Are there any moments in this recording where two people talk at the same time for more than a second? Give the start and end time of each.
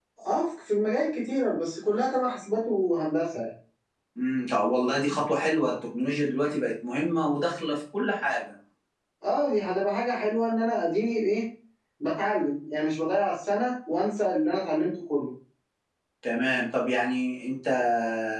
none

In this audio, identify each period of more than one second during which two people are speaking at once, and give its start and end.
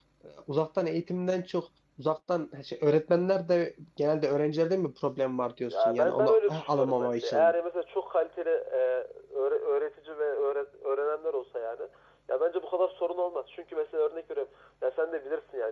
5.7-7.5

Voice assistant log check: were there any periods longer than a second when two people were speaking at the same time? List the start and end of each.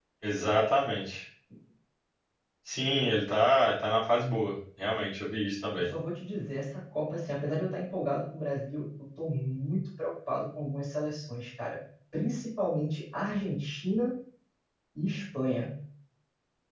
none

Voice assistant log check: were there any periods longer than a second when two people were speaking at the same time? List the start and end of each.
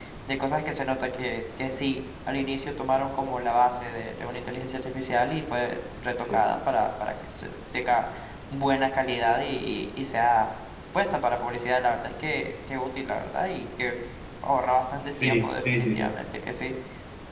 14.9-16.1

